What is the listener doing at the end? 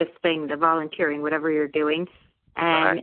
listening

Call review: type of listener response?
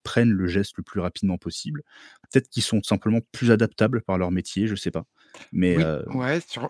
taking over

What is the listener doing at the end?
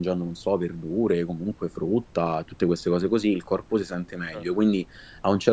listening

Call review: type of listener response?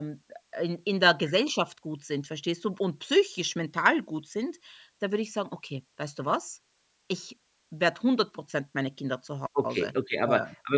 taking over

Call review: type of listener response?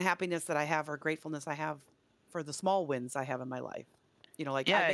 listening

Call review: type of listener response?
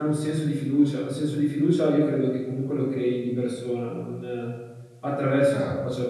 taking over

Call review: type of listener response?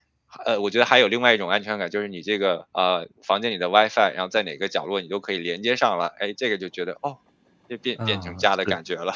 taking over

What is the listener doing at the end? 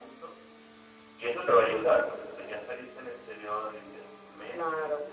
taking over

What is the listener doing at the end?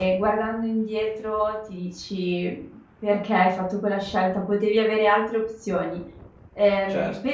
listening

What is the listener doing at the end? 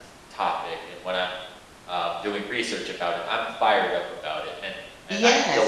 taking over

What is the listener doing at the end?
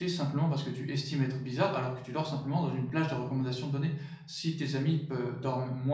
listening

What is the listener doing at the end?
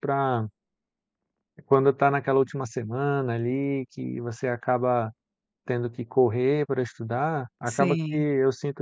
listening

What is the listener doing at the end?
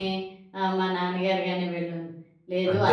listening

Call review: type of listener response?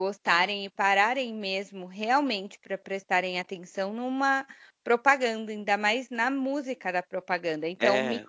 listening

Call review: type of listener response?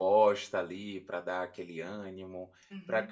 listening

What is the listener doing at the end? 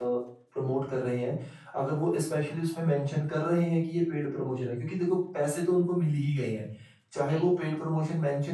listening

